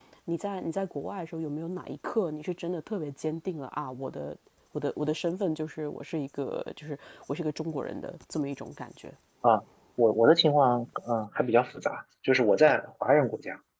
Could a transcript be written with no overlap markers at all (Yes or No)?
Yes